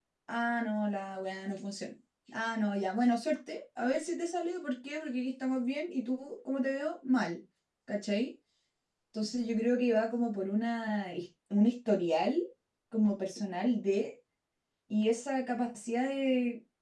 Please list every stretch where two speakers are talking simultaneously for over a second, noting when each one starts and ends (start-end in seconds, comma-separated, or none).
none